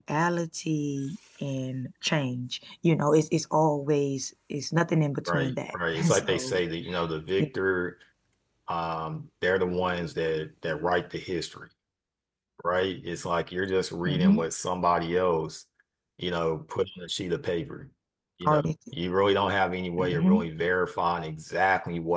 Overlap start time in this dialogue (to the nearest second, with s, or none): 5 s